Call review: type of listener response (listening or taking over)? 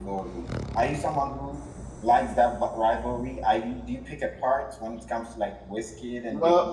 taking over